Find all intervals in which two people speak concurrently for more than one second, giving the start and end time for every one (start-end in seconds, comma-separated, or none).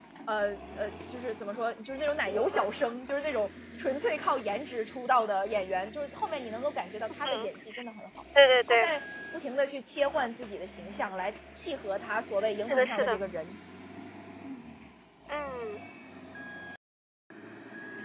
none